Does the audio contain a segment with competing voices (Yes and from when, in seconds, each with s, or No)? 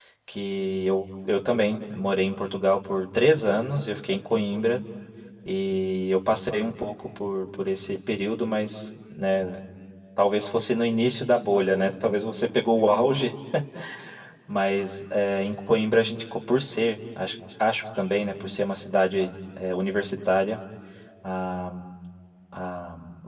No